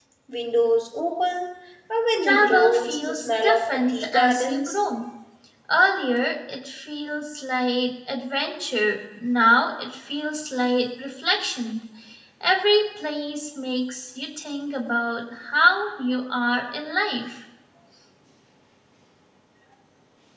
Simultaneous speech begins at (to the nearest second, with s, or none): 2 s